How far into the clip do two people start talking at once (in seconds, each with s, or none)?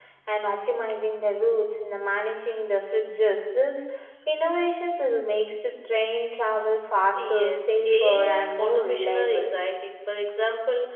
7.1 s